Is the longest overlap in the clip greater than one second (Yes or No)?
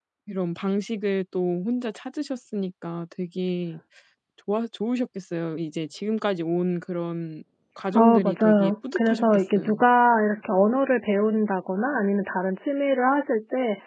Yes